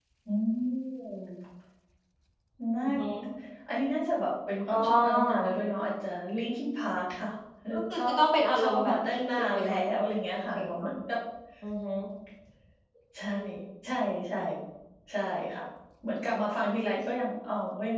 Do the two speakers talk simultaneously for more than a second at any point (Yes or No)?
Yes